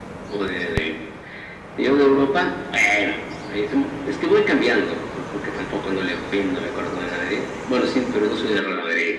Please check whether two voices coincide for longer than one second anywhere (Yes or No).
No